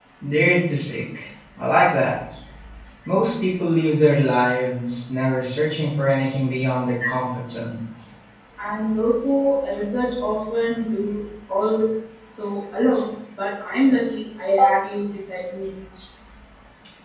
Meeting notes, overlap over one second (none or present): none